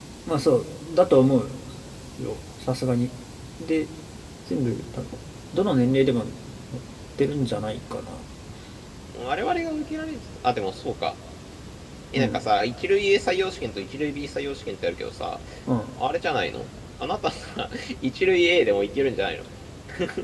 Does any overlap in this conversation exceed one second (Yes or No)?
No